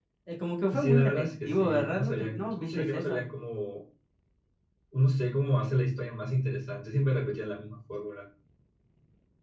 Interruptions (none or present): present